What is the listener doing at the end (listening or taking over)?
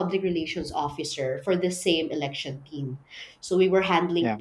listening